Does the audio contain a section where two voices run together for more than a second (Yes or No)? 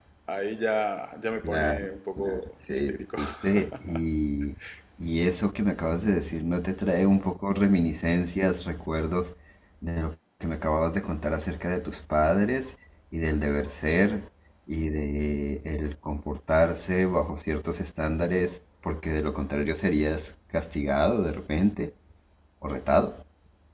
Yes